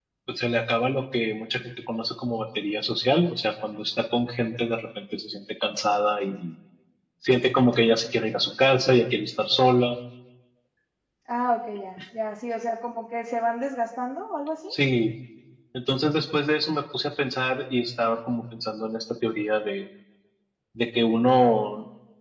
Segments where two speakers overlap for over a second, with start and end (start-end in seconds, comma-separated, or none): none